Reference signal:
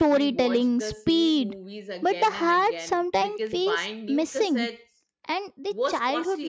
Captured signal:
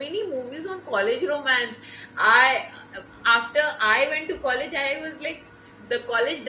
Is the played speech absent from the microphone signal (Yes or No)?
Yes